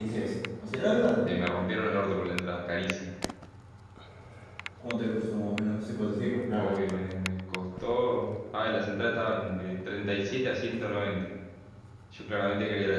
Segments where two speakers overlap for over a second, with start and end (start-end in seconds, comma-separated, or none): none